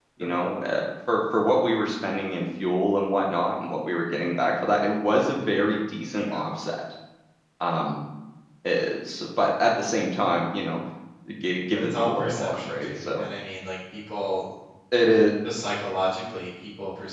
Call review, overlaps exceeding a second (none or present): present